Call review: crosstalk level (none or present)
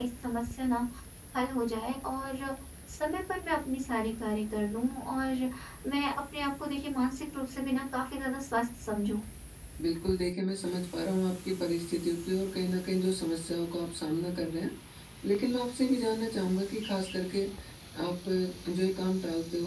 none